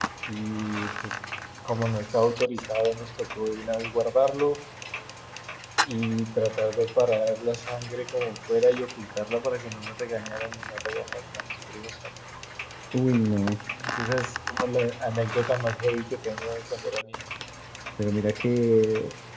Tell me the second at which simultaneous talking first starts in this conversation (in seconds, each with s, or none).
none